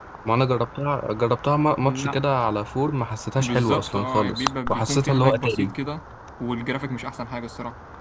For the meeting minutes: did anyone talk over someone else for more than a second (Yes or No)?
Yes